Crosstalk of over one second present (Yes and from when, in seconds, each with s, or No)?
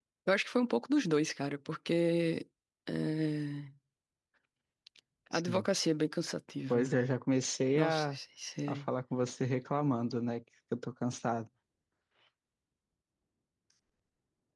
No